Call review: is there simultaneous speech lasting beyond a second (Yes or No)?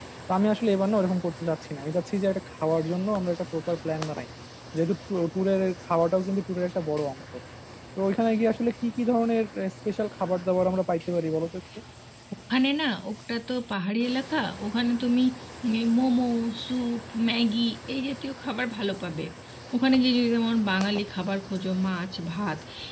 No